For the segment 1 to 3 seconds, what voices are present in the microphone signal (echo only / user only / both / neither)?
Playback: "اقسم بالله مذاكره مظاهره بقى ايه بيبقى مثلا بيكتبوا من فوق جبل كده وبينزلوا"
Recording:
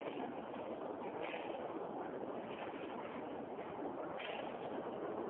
neither